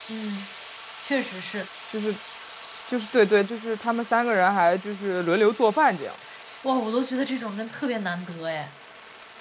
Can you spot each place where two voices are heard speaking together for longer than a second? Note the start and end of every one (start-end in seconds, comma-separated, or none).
none